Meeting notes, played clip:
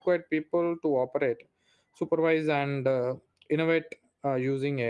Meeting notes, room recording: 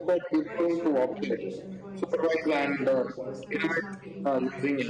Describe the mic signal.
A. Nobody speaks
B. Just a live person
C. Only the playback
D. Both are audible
D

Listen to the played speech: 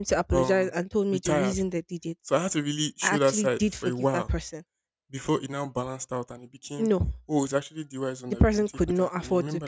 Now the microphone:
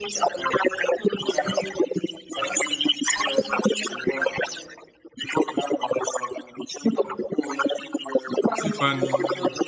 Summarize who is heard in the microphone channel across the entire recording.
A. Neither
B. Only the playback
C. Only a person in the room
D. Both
D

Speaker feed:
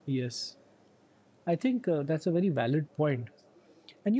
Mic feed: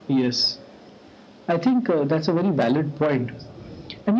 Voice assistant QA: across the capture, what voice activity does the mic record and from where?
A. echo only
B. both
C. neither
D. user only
A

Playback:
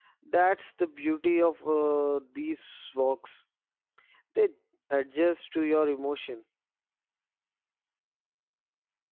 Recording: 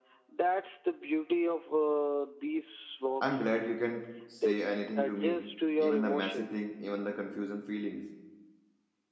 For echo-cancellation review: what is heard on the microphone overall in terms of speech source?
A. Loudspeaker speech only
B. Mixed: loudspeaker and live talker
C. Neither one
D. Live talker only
B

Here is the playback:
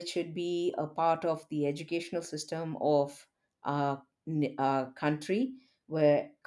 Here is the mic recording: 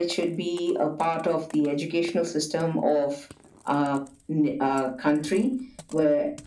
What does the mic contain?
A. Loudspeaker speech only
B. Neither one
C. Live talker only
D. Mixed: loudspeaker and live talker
A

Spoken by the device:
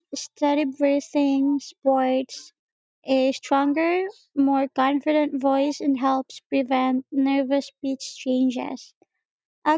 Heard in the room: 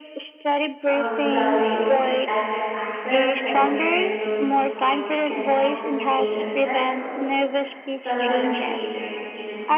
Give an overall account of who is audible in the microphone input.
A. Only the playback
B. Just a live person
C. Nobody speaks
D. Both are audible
D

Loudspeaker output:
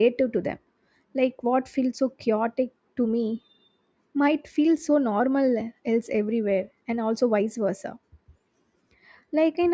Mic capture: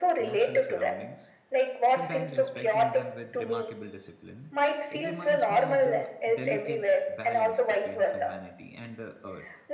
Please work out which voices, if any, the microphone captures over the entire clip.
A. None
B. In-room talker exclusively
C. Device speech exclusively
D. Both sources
D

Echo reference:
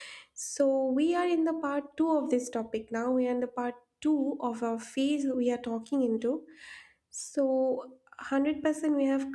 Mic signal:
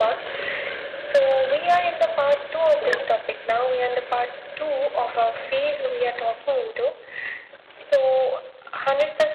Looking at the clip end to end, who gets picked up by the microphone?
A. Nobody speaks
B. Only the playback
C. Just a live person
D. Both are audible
B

